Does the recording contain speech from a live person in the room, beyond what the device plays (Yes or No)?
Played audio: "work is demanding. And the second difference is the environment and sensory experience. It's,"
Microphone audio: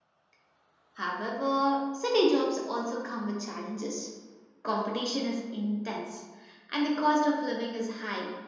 Yes